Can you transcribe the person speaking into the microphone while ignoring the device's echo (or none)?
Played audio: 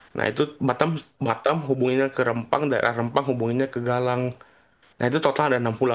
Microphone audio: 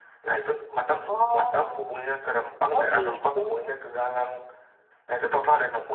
Oh, oh gitu.